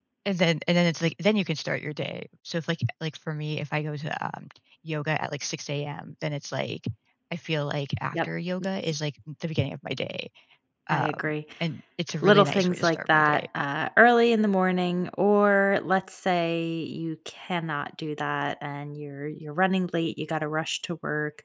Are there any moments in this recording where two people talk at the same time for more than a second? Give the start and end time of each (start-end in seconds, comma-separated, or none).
12.2-13.4